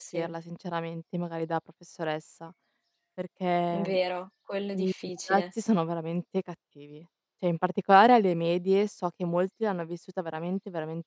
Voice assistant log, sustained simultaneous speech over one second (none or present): none